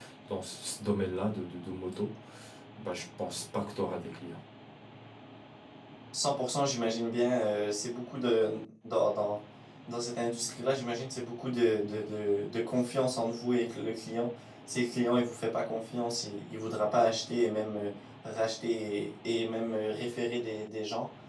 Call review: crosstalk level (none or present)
none